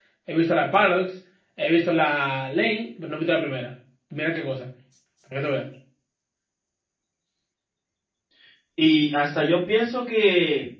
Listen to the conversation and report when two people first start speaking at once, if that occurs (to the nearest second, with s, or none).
none